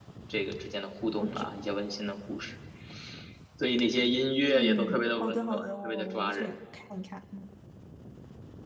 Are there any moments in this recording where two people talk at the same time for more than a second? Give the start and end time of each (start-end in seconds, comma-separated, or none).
4.5-6.6